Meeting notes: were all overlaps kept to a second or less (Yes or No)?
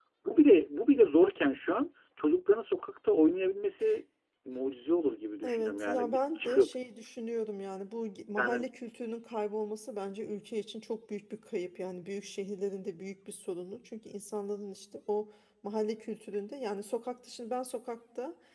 No